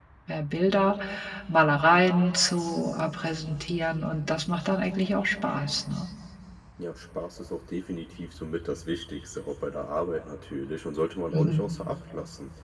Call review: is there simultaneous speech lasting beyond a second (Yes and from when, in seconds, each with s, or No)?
No